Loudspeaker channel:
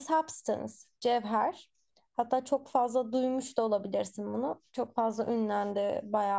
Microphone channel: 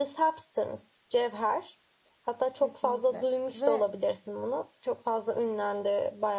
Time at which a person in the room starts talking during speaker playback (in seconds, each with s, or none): 2.6 s